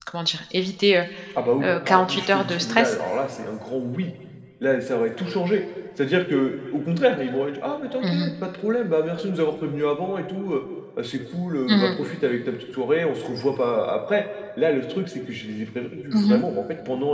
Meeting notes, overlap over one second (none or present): present